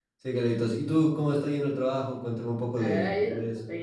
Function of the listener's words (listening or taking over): taking over